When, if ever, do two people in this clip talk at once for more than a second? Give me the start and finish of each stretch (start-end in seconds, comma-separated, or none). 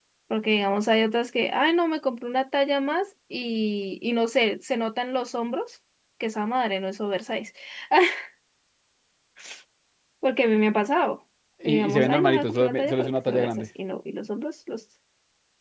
11.7-13.7